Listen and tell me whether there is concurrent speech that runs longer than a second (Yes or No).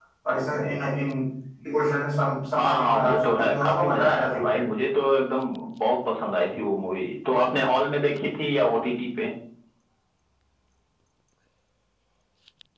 Yes